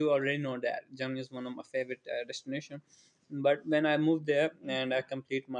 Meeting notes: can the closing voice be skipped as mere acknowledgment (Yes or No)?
Yes